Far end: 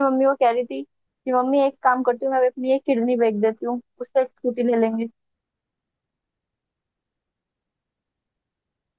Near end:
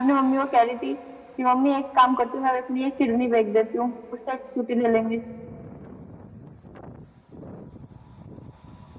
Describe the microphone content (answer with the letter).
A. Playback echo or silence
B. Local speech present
A